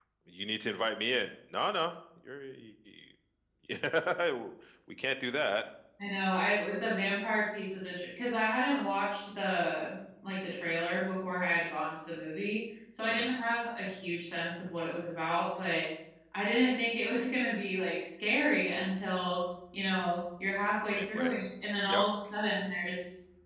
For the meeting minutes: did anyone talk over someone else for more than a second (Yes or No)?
No